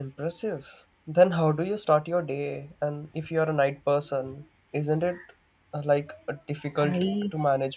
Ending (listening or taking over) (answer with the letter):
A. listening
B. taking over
B